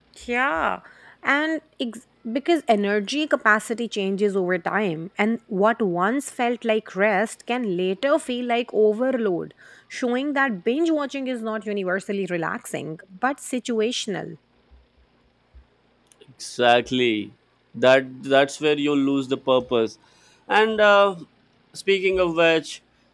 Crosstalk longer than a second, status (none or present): none